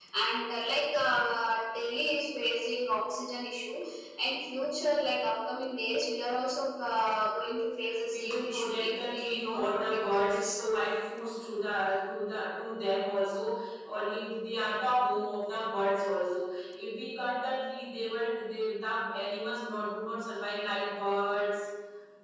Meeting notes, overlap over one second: present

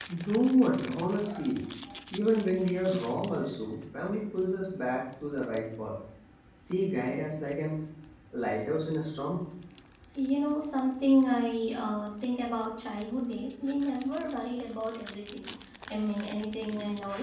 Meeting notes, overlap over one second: none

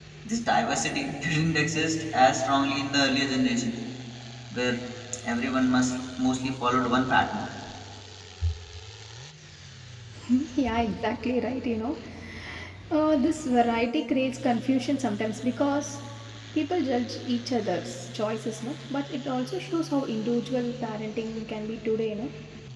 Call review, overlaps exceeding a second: none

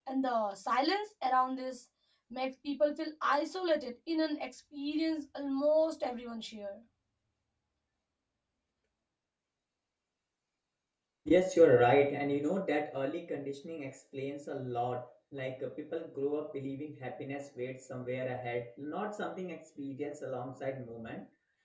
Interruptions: none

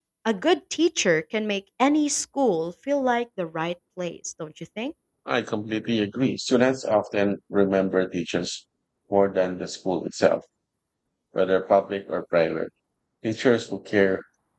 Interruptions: none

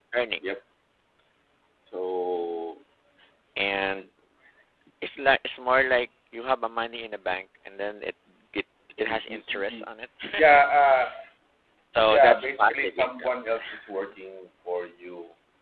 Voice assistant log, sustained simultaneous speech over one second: present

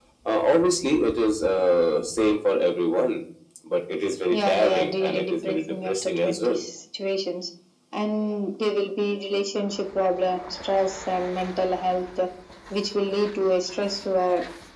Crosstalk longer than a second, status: present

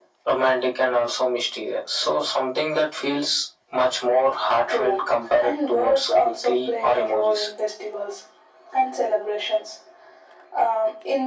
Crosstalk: present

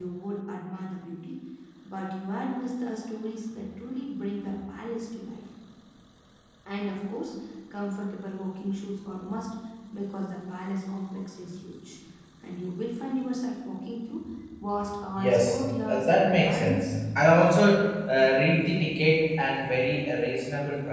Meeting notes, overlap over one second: present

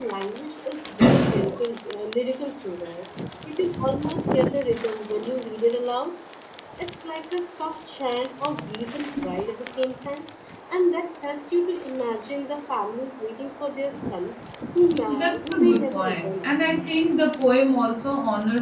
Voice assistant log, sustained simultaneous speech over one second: present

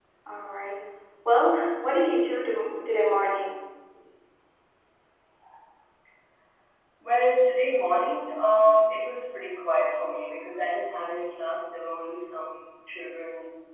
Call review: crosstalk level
none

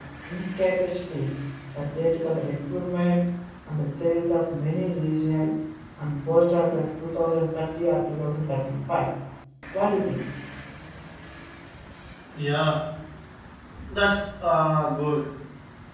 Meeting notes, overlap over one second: none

